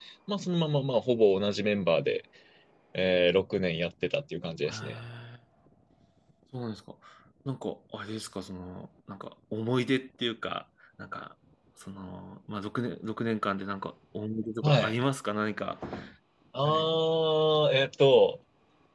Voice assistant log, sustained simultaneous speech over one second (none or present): none